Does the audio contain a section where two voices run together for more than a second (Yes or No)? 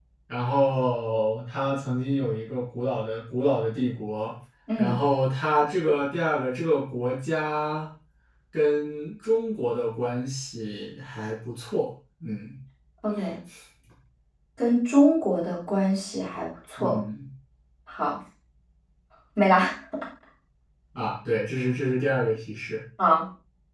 No